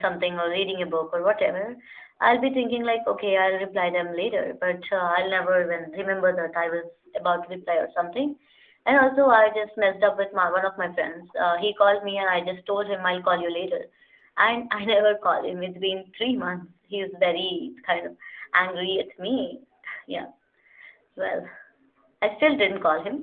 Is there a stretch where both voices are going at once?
No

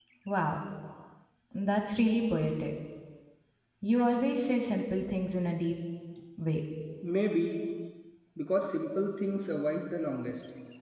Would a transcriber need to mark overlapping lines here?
No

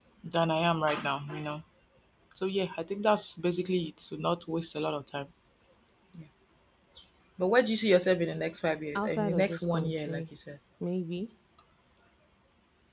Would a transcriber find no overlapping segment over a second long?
No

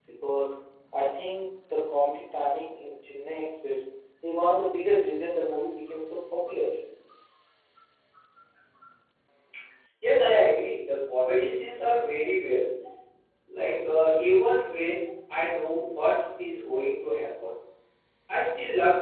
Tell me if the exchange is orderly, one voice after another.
Yes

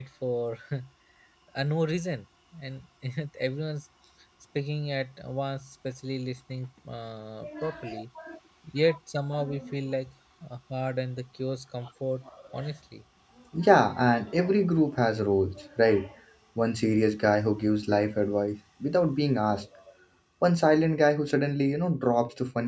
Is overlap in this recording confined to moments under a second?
Yes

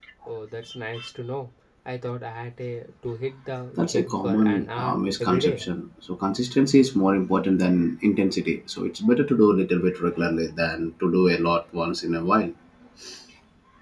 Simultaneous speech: Yes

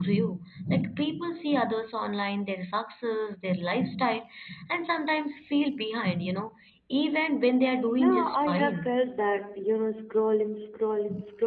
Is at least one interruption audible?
Yes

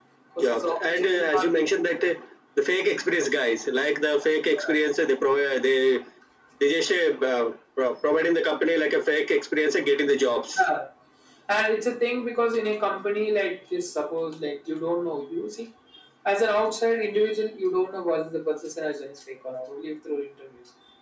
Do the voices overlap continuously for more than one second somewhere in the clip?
Yes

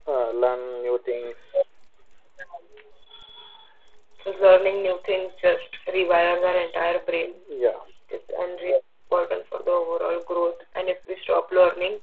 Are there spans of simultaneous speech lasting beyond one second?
No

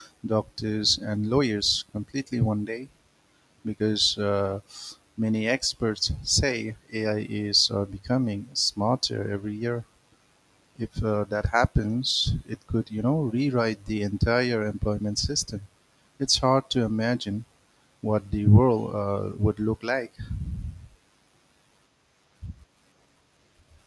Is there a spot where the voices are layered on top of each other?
No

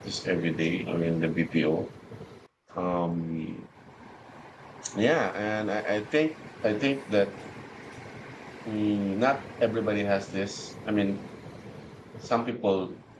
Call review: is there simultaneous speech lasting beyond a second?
No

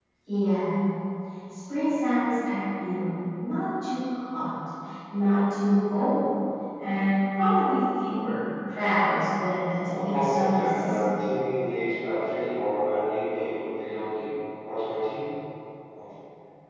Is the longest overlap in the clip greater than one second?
Yes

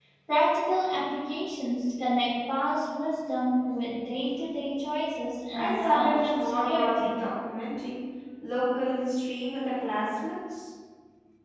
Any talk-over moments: Yes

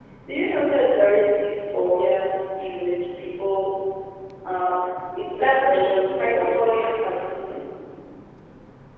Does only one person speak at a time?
No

